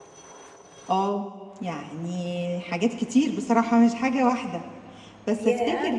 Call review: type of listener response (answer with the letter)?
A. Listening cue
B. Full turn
A